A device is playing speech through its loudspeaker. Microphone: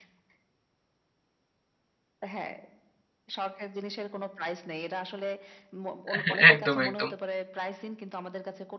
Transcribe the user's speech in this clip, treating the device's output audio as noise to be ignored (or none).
এহ একদম, একদম।